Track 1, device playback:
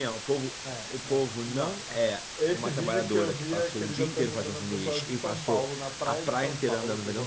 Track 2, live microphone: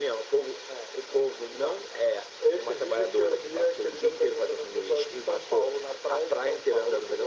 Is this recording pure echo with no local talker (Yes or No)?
Yes